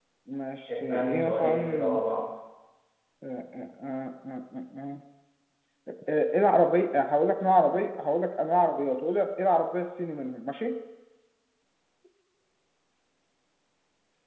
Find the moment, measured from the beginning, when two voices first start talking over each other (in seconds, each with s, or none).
0.7 s